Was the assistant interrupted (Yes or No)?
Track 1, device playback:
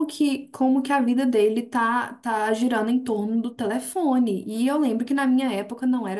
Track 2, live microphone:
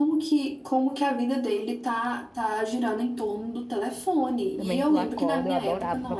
Yes